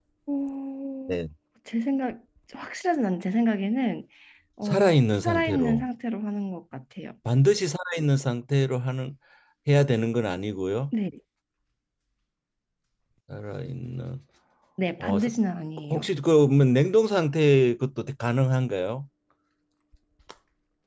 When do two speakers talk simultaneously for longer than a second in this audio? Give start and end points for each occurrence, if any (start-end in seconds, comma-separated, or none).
4.7-5.8